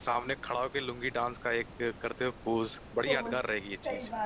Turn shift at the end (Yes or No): Yes